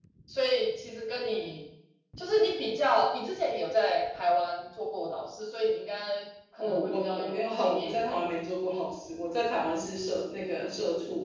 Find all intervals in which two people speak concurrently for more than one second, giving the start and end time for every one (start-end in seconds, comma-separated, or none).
6.6-8.2